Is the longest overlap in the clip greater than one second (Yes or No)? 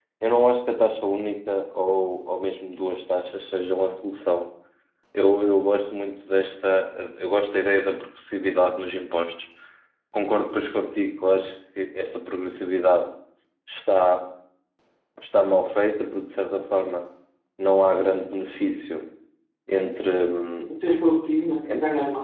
No